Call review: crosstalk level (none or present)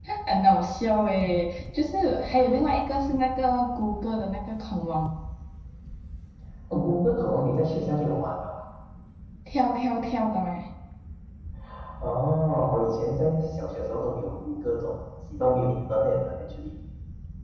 none